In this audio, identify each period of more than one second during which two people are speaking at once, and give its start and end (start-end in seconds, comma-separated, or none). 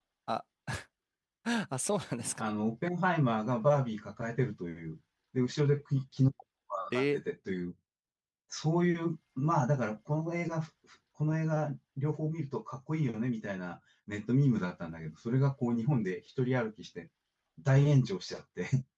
none